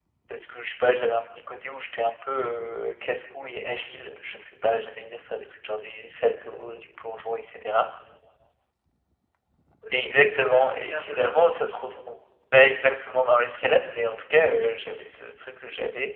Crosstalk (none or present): present